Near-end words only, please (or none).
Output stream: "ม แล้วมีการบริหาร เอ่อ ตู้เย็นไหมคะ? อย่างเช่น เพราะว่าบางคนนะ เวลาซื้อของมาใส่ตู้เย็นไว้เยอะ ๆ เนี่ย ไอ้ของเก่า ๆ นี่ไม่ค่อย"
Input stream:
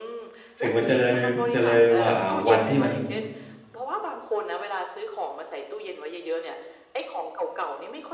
ถึงมันจะเลย จะเลยหว่า อ่า วันที่มัน